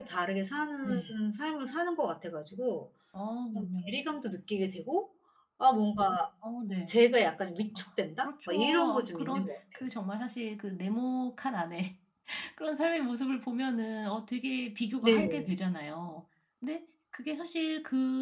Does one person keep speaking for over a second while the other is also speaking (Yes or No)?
Yes